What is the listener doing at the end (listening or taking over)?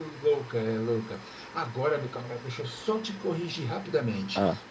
listening